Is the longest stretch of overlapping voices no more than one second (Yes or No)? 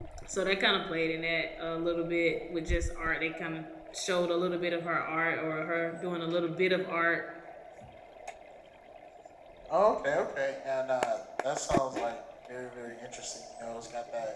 Yes